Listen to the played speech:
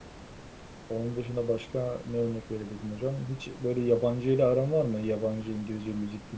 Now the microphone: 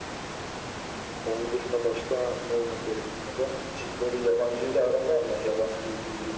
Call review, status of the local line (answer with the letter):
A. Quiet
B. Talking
A